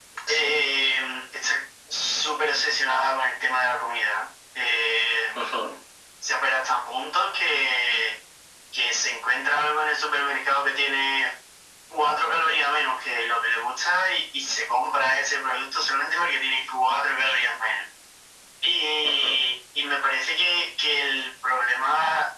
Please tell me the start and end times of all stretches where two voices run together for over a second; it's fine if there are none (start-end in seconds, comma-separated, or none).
none